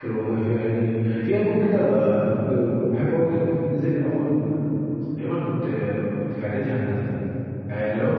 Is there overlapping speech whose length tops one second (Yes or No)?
No